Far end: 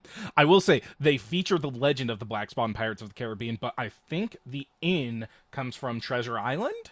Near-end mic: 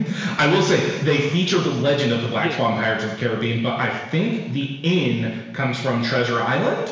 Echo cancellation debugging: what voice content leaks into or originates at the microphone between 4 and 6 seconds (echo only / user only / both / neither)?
echo only